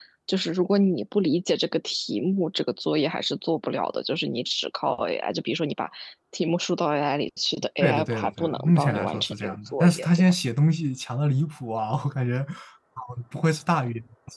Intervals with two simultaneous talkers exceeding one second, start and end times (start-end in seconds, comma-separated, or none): 7.8-10.1